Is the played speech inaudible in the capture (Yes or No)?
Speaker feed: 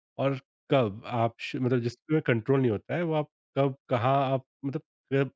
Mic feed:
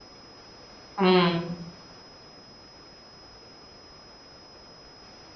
Yes